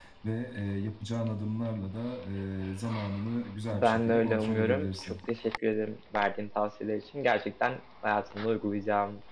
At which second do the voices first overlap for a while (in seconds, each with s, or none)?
3.7 s